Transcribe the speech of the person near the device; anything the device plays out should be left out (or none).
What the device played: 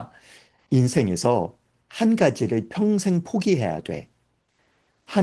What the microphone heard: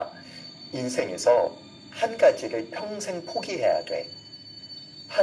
none